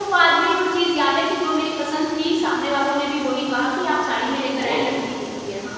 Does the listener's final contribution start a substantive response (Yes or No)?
Yes